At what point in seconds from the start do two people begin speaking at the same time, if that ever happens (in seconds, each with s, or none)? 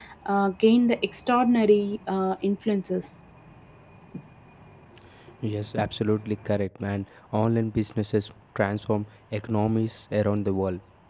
none